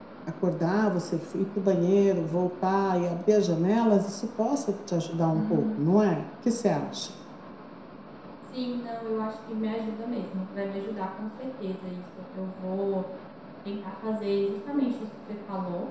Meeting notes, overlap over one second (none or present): none